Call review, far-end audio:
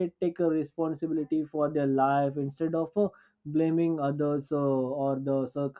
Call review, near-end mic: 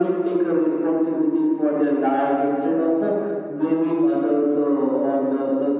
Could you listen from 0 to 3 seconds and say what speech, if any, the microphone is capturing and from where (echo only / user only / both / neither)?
echo only